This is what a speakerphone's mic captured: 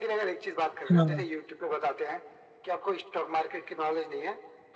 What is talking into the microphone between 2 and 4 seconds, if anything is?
echo only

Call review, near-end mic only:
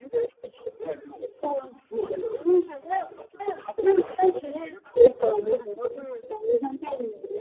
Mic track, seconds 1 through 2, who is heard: echo only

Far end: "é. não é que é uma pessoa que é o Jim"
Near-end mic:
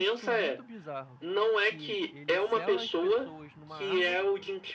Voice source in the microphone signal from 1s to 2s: both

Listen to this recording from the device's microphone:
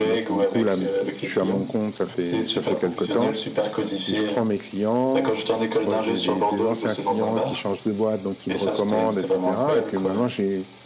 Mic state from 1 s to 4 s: both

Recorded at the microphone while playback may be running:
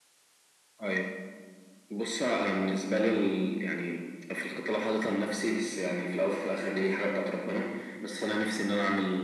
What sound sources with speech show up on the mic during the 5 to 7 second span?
echo only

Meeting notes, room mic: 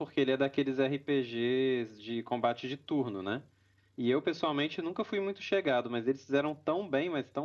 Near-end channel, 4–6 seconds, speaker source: echo only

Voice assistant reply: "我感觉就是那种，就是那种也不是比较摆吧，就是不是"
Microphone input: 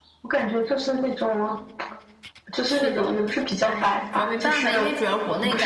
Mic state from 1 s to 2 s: echo only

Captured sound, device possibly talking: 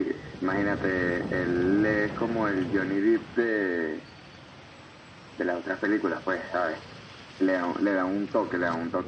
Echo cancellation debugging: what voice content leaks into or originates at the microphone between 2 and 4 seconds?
echo only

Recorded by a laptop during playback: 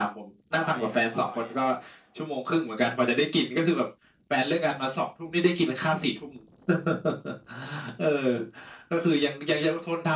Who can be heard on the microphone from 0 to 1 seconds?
both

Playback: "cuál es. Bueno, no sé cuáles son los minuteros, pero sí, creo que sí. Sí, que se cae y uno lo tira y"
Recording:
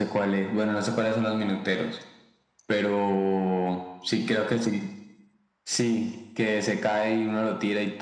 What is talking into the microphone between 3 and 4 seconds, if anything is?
echo only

